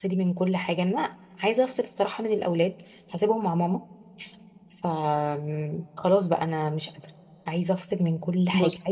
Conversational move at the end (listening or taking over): listening